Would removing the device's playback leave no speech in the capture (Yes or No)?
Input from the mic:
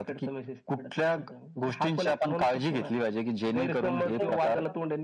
No